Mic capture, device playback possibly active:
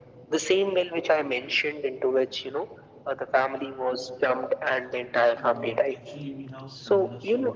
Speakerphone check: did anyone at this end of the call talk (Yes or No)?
Yes